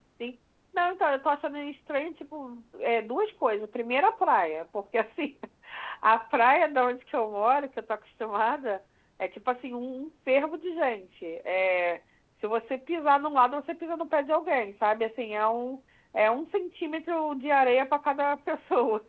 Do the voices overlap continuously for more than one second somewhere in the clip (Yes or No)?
No